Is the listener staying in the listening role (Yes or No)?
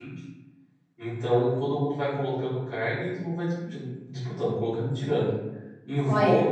Yes